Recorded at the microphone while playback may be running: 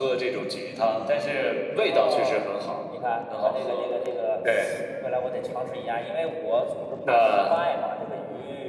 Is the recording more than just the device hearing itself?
No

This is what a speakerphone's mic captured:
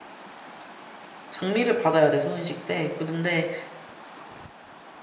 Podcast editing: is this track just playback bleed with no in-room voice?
No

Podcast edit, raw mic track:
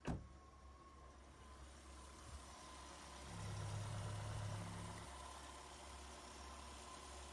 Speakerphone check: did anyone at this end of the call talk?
No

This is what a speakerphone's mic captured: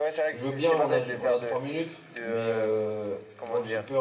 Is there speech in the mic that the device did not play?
Yes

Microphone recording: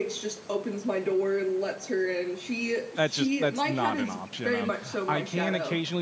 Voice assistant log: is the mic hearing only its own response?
No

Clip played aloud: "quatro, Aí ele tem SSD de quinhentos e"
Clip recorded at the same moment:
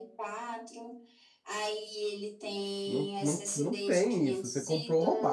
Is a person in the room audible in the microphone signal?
Yes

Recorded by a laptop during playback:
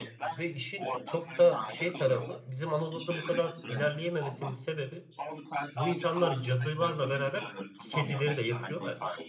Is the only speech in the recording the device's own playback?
No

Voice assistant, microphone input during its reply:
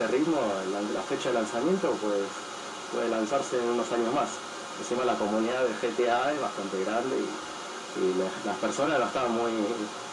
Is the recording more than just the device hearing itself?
No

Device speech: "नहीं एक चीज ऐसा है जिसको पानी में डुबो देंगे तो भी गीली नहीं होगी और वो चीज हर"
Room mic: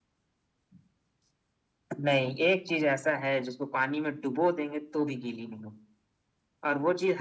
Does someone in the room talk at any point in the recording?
No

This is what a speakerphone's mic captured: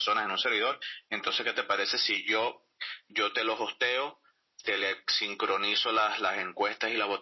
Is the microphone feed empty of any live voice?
Yes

